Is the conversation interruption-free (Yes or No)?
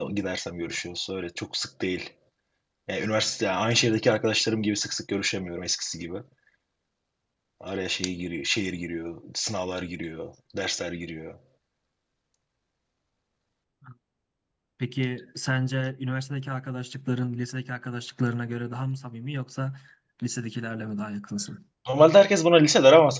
Yes